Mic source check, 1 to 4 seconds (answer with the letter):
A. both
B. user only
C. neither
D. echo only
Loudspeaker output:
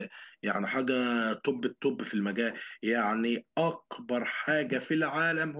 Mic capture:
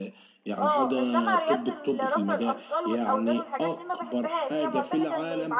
A